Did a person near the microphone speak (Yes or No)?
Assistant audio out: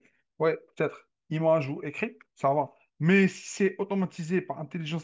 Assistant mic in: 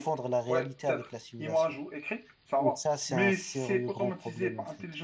Yes